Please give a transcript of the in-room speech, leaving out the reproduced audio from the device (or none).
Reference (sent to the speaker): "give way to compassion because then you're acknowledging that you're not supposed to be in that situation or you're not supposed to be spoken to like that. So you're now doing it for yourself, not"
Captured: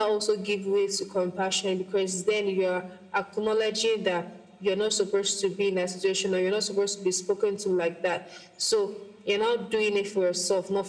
none